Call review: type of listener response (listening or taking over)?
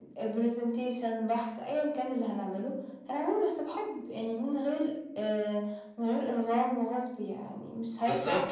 taking over